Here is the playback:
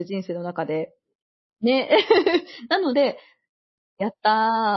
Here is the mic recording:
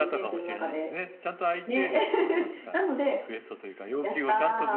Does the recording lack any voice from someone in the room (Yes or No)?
No